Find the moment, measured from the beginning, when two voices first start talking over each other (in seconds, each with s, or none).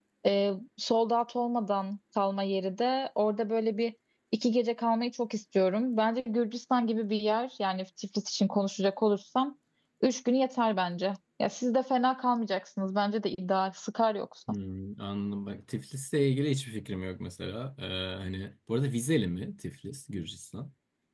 none